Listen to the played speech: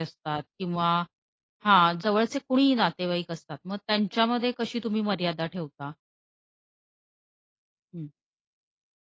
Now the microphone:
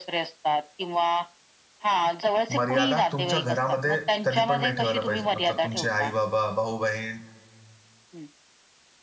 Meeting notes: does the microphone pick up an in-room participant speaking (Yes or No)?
Yes